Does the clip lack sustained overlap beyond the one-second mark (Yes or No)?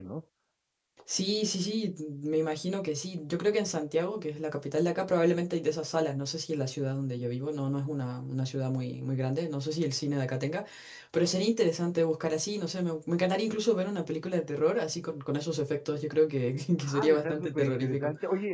No